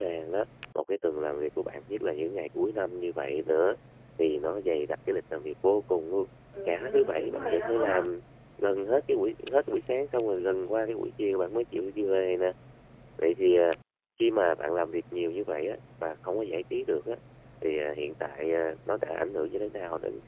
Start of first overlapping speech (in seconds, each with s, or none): 6.6 s